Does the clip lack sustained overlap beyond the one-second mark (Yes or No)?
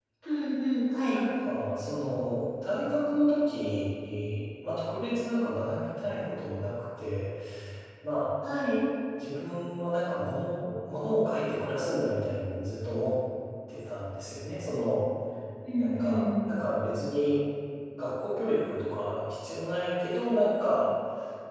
Yes